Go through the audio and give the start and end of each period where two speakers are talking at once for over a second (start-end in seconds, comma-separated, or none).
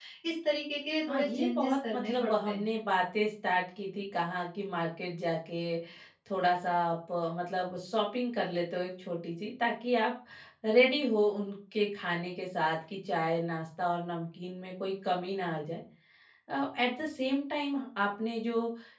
1.1-2.7